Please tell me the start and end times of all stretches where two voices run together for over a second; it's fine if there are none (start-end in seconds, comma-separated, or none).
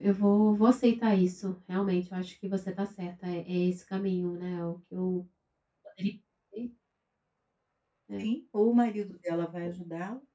none